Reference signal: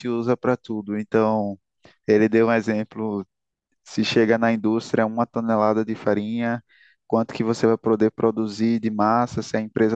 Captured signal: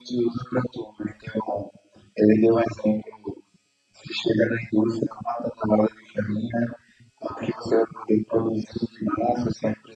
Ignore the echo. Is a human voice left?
No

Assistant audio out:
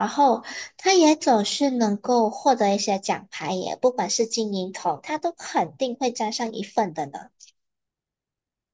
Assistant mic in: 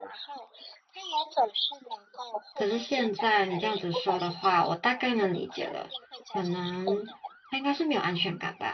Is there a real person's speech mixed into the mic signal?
Yes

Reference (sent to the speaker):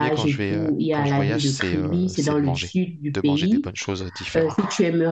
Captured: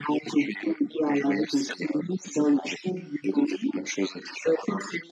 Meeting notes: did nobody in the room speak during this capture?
Yes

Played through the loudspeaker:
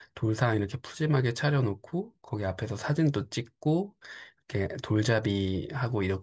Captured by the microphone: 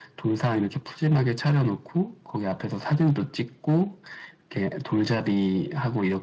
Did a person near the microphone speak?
No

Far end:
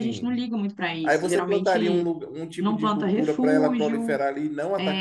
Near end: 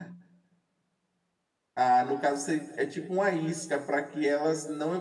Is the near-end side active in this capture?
Yes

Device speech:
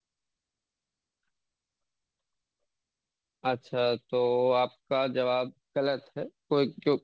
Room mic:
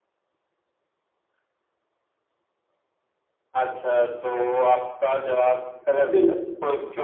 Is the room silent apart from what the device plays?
No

